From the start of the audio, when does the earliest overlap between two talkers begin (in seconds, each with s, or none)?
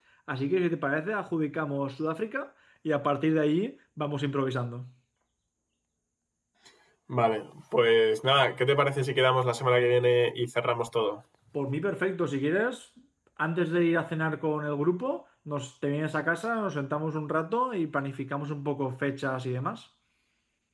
none